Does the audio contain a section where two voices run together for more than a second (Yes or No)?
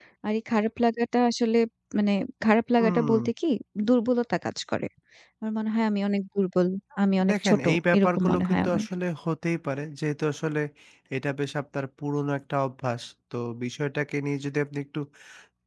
Yes